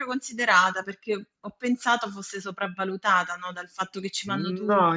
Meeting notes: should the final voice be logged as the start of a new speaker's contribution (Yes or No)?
Yes